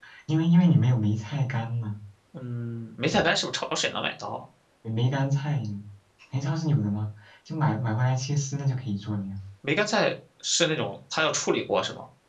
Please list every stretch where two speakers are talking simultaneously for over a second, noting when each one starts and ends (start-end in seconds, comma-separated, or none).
none